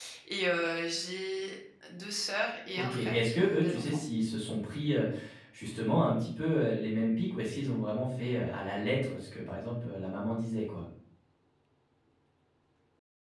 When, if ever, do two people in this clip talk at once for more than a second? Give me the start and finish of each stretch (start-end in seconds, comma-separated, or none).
2.8-4.0